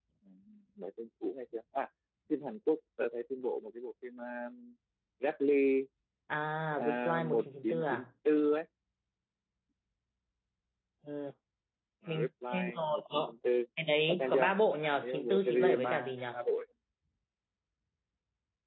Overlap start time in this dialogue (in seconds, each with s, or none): 6.8 s